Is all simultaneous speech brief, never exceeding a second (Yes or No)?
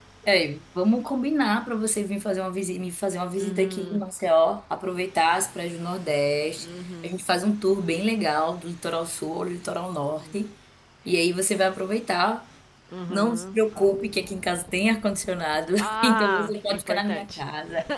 No